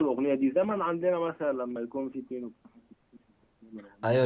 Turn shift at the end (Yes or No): Yes